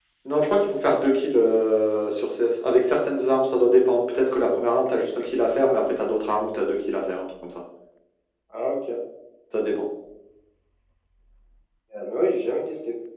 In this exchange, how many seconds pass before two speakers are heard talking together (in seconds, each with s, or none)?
none